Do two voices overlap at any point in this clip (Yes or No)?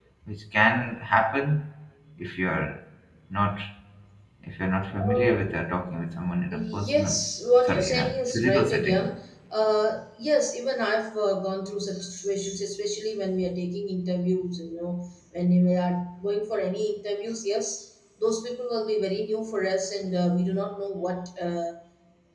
Yes